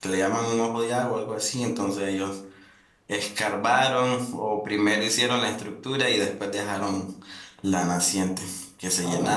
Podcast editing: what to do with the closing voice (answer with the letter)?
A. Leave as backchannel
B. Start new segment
B